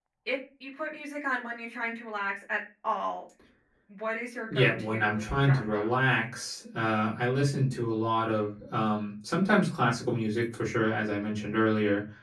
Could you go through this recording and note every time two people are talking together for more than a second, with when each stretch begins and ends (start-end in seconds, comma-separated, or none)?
4.5-5.9